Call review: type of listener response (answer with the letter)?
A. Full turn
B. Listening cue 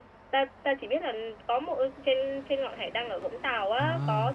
A